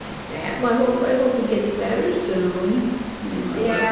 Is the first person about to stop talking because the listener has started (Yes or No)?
Yes